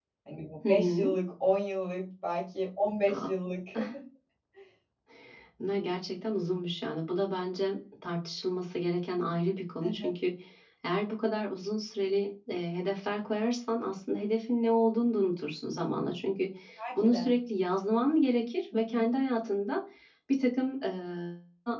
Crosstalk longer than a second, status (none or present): none